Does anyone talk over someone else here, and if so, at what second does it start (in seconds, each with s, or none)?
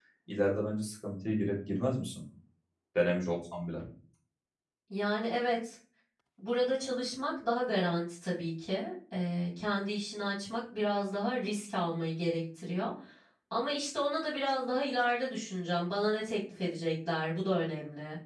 none